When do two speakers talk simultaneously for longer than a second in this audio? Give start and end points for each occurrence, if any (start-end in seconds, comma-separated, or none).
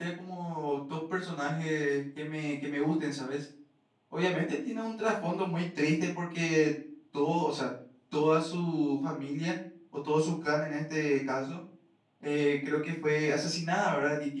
none